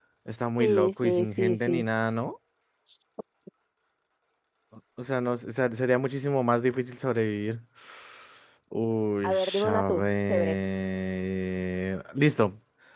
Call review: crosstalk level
present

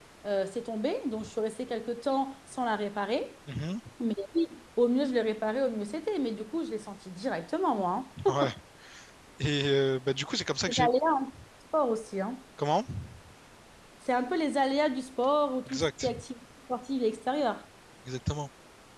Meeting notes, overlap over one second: none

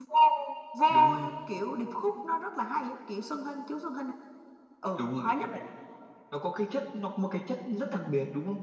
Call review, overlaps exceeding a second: none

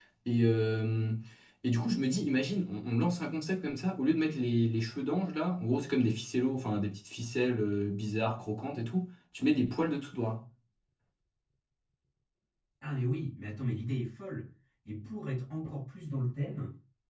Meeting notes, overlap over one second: none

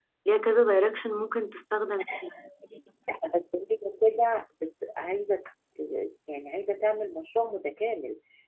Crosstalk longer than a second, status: none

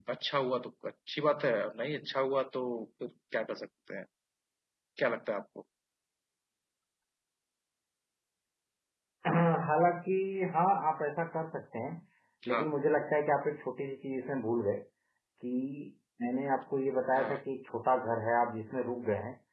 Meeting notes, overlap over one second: none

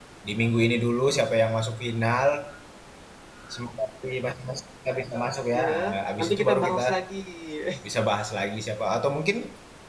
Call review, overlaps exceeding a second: present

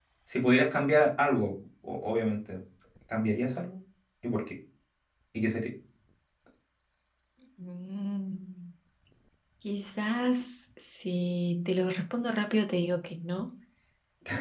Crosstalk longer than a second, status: none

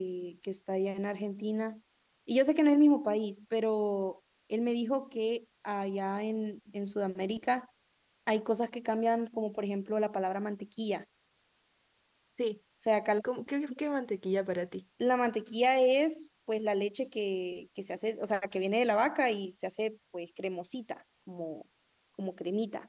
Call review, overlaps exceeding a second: none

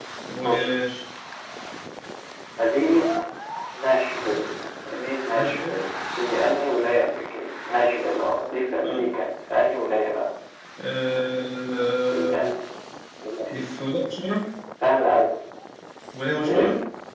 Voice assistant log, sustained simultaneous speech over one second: none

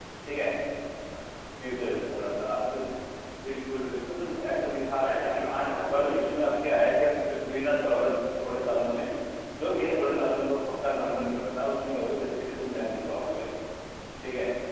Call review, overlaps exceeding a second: present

